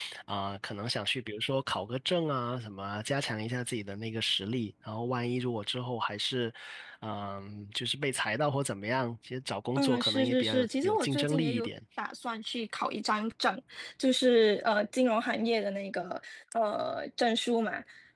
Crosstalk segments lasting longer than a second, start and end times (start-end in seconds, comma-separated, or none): 9.8-11.7